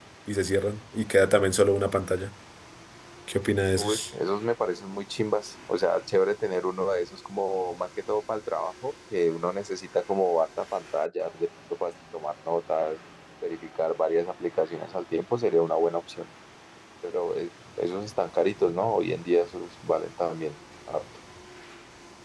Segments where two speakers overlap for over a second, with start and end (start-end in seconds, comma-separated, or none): none